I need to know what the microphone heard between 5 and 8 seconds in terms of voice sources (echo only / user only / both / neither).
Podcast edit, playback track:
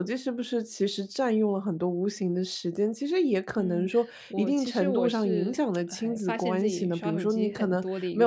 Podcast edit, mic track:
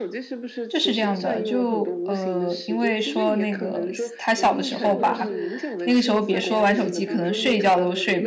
both